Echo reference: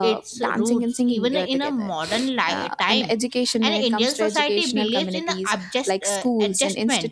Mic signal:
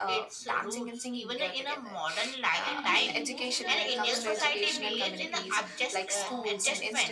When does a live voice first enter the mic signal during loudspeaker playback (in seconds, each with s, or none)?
2.6 s